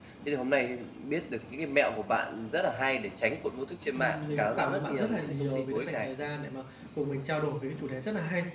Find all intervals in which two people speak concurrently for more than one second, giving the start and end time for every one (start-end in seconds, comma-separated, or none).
4.0-6.1